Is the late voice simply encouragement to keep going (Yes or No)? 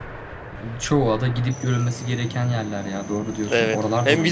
No